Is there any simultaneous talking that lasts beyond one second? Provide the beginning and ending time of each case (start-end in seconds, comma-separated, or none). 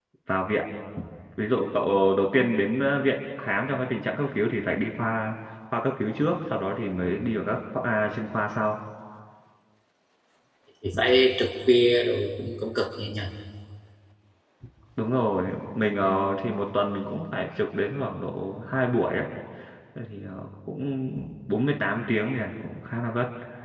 none